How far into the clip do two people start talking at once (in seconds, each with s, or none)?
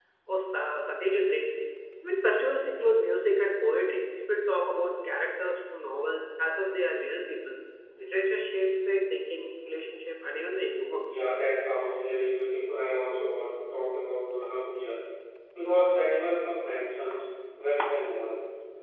none